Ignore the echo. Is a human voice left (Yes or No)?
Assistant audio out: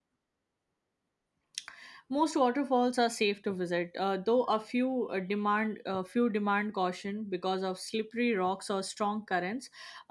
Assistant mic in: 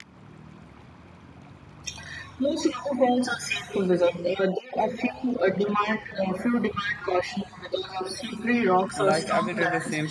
Yes